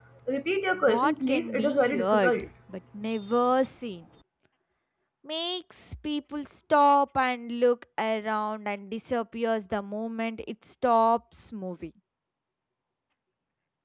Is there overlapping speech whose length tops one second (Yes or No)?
Yes